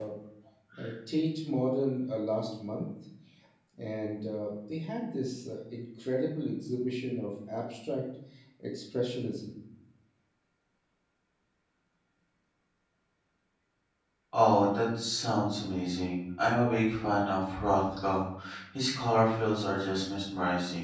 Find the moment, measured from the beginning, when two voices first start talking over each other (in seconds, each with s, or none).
none